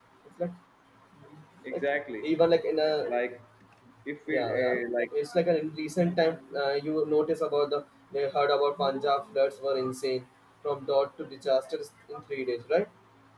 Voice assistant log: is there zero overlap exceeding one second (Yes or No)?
Yes